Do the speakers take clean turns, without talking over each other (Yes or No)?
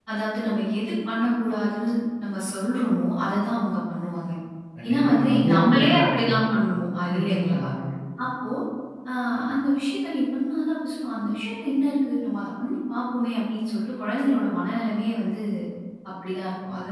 No